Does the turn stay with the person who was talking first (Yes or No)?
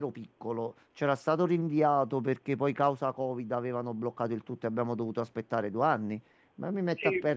Yes